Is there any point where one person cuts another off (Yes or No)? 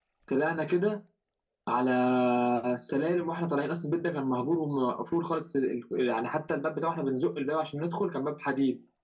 No